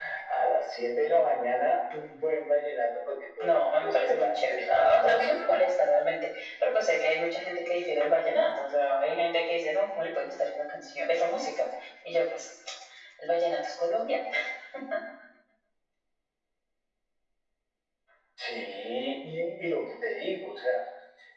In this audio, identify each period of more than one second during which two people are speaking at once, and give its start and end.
3.5-5.4

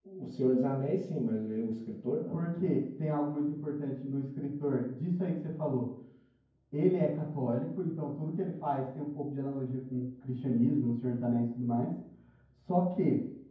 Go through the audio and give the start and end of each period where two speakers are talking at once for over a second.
none

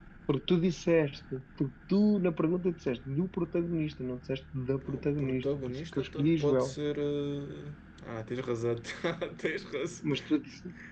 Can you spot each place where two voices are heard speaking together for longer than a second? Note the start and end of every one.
4.8-6.7

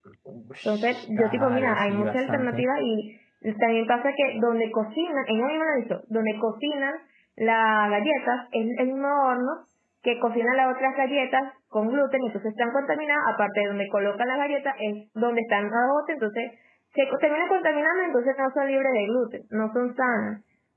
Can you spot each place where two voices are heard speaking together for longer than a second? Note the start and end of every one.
0.6-2.6

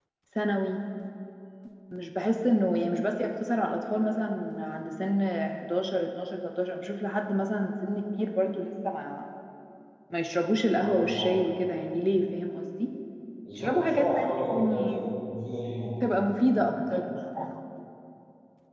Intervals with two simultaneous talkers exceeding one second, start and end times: 13.6-15.1

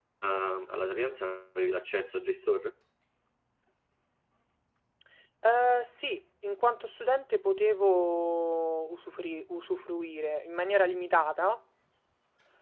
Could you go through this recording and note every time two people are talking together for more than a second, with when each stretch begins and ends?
none

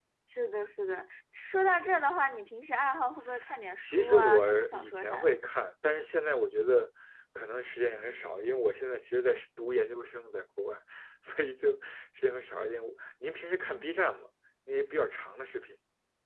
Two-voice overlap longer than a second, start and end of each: 3.8-5.4

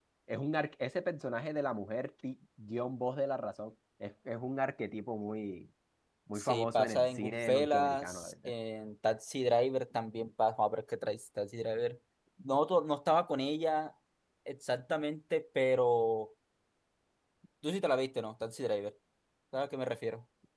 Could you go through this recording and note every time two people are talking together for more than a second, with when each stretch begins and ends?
6.4-8.5

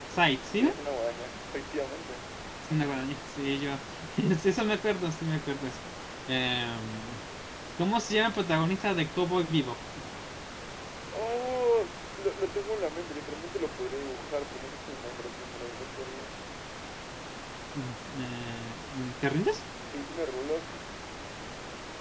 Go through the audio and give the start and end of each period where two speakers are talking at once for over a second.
none

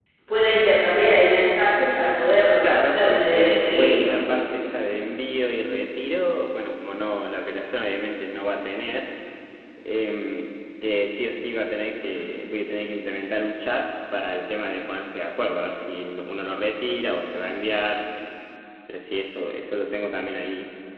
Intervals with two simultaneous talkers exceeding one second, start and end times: 2.6-4.1

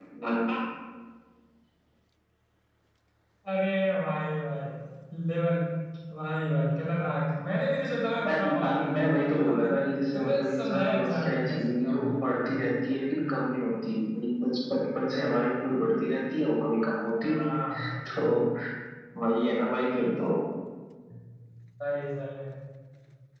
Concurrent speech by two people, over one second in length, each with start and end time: 8.3-9.7, 10.1-12.1

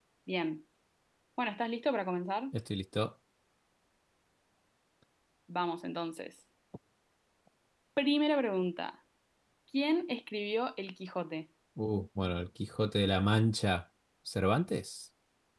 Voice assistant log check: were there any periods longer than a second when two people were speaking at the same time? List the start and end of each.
none

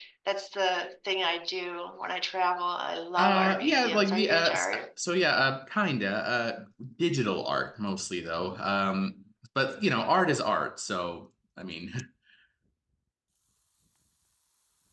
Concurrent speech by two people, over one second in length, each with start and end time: 3.2-4.8

